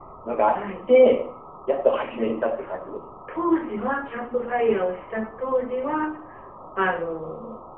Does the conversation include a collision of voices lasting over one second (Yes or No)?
No